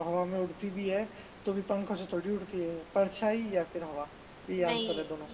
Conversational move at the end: taking over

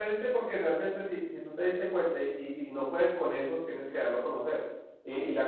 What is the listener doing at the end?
listening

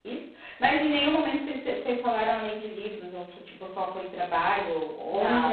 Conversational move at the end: taking over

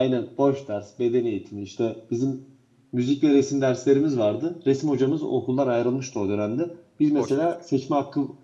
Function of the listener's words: listening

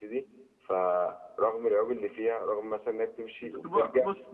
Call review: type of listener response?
taking over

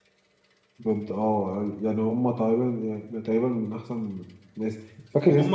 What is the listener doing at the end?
taking over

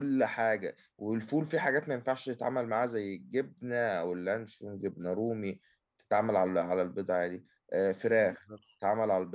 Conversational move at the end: listening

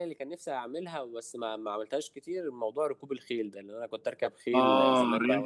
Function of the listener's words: taking over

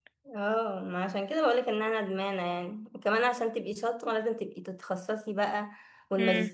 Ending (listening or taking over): listening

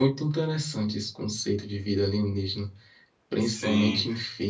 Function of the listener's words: listening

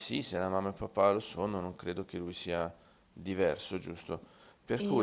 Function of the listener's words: listening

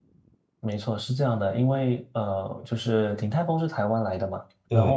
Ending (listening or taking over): listening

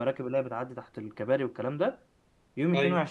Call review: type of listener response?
listening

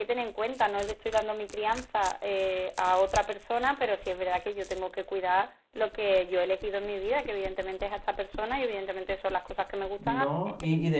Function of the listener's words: taking over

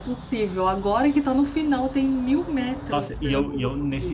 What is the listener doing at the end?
taking over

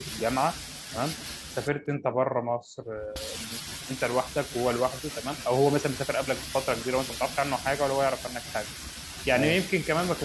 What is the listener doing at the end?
listening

